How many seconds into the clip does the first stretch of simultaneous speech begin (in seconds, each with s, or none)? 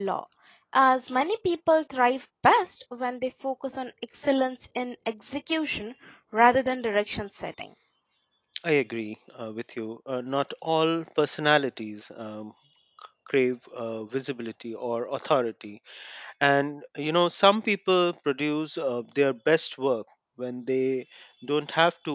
none